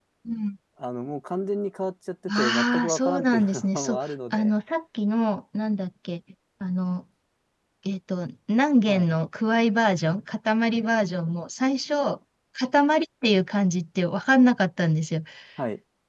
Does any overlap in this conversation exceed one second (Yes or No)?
Yes